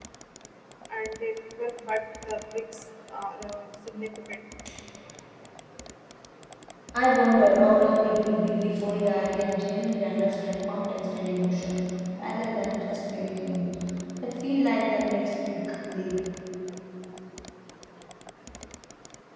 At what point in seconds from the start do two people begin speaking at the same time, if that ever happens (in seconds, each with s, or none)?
none